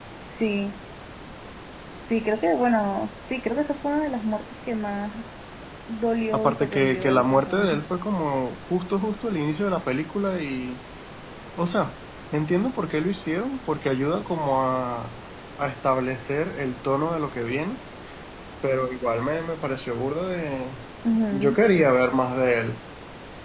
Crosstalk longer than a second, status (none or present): present